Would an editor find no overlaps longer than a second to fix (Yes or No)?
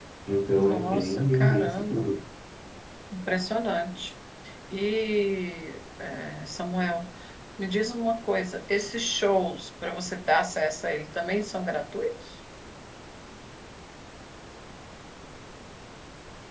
No